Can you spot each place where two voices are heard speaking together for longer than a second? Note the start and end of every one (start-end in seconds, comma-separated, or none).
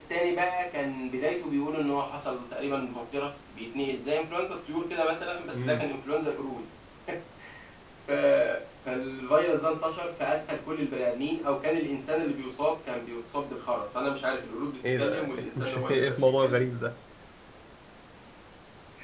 15.0-16.6